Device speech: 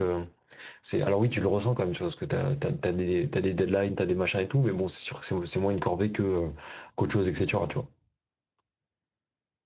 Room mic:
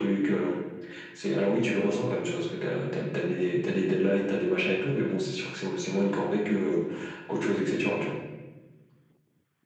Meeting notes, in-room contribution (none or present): none